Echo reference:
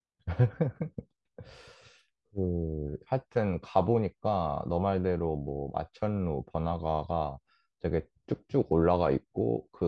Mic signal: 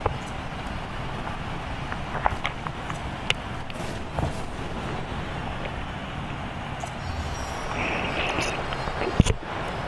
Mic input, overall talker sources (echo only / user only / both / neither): neither